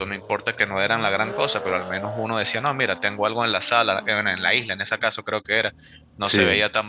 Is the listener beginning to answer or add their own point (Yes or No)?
No